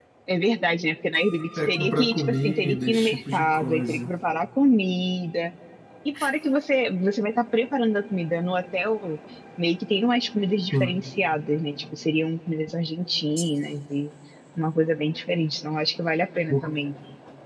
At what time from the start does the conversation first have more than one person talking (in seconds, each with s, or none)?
1.6 s